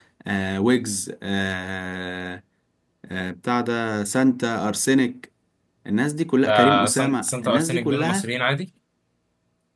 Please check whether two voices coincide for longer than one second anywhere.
Yes, from 6.5 s

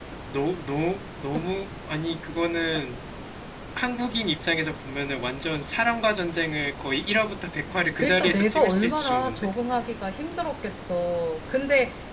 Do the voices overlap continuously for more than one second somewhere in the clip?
Yes, from 8.0 s

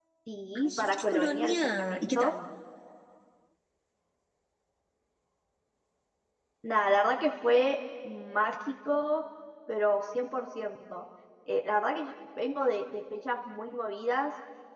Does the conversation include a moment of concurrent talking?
Yes, from 0.6 s

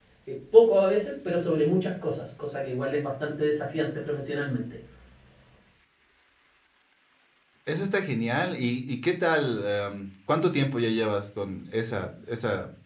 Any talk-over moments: No

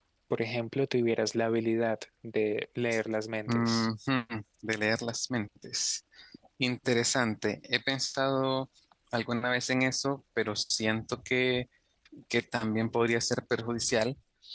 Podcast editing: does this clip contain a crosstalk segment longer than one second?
No

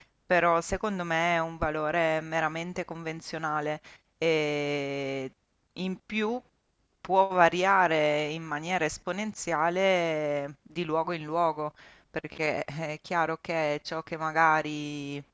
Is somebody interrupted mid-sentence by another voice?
No

